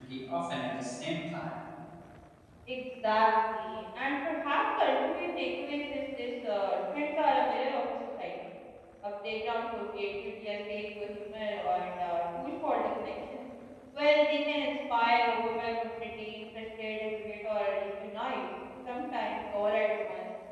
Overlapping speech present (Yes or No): No